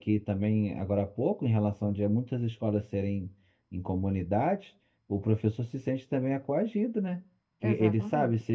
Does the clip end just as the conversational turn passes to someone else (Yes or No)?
No